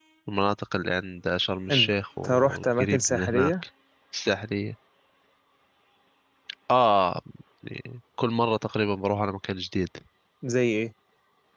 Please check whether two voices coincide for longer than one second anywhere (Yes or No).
Yes